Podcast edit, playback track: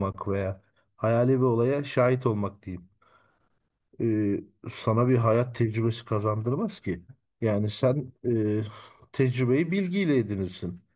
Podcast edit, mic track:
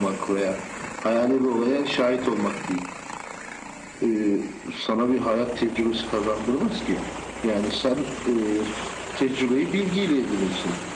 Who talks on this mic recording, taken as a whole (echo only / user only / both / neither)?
echo only